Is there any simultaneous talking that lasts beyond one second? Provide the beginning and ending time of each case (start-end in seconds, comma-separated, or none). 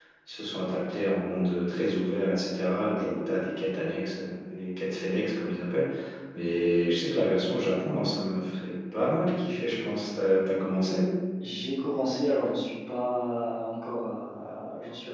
none